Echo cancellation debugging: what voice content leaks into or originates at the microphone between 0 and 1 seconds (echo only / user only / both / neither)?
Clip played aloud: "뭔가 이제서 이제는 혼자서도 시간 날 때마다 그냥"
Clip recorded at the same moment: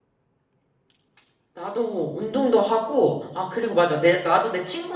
neither